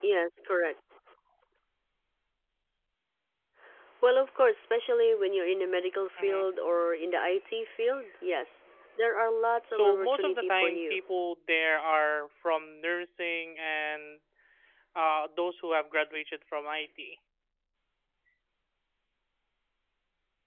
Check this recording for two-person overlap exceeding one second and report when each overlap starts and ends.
9.7-11.0

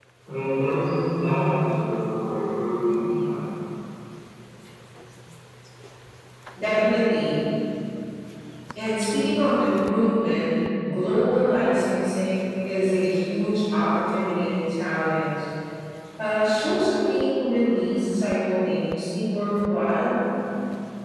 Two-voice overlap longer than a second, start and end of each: none

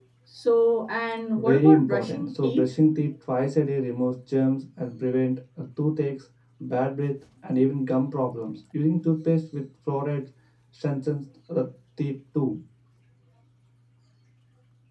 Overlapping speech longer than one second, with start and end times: 1.4-2.7

